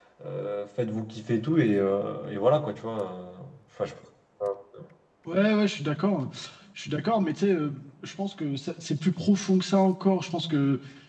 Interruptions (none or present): none